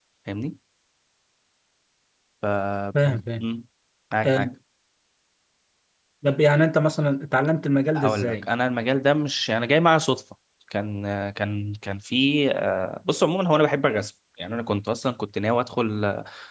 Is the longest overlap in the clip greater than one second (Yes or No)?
No